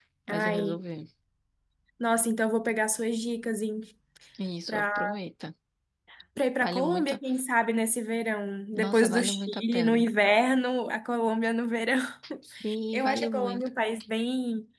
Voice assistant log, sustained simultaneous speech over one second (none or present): present